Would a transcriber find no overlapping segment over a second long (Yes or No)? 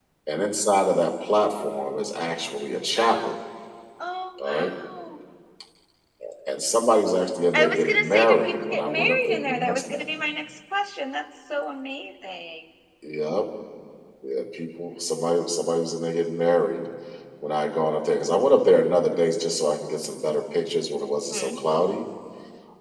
No